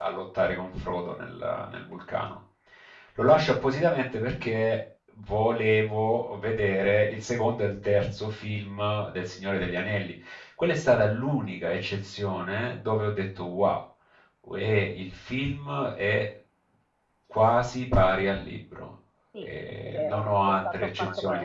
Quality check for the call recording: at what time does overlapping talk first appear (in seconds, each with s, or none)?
19.3 s